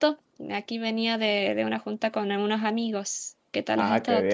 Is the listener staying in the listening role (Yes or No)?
No